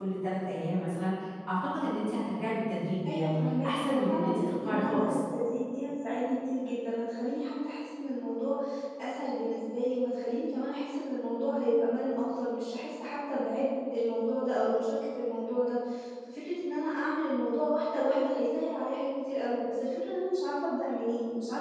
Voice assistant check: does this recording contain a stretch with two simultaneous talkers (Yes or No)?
Yes